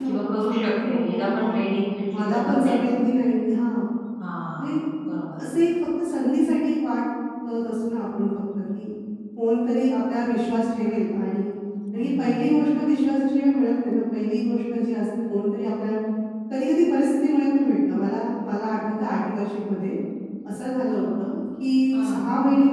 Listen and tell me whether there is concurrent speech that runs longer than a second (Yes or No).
Yes